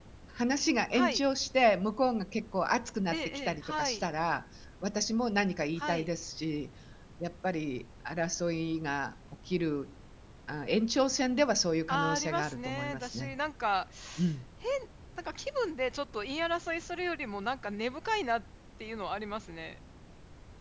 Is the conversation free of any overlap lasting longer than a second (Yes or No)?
No